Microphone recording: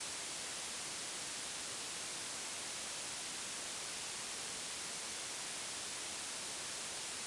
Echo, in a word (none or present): none